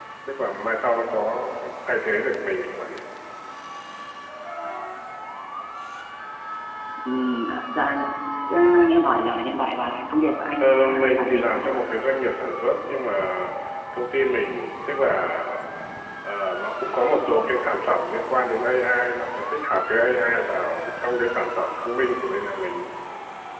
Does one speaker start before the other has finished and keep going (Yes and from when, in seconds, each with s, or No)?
Yes, from 10.6 s